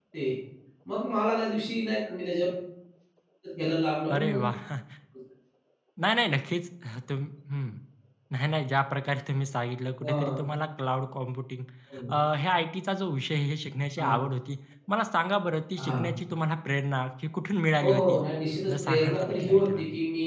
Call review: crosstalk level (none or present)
present